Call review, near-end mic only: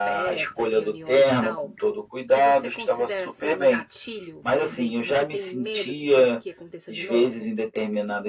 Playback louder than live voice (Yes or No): Yes